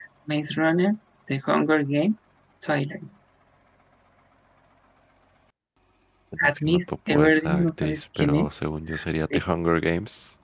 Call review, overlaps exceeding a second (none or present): present